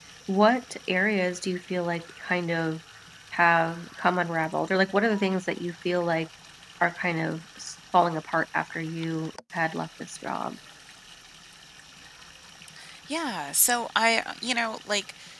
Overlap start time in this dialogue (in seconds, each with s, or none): none